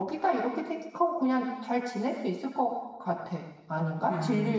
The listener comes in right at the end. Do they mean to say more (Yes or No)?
Yes